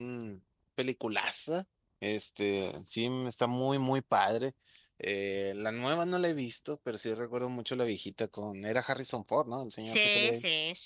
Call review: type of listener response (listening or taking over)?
taking over